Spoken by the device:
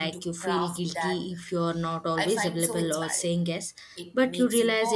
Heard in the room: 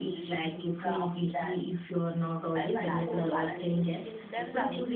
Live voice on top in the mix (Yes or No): No